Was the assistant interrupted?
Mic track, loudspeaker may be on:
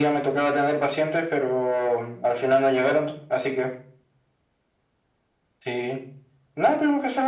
No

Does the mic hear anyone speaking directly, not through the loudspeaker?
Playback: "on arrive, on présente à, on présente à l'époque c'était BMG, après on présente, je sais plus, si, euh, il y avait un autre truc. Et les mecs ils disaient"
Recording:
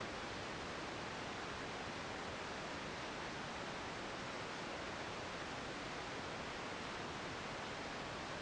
No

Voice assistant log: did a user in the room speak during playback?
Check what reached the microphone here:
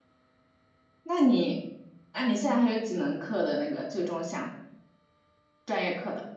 Yes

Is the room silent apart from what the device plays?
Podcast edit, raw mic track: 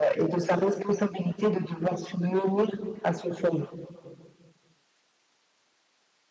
Yes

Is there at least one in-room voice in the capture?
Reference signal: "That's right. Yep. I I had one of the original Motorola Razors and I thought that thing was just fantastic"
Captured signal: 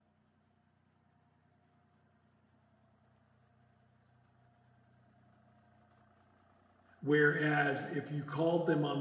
Yes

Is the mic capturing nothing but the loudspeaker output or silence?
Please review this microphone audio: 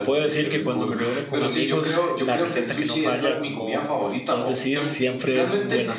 No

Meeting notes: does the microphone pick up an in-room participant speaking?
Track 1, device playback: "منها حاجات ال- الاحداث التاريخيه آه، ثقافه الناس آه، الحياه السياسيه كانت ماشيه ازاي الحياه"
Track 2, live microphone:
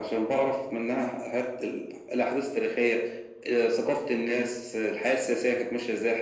No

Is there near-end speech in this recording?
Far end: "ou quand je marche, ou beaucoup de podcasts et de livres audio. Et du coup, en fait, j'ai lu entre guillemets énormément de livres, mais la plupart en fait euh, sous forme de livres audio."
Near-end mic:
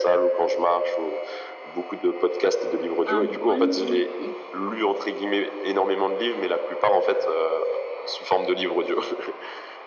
Yes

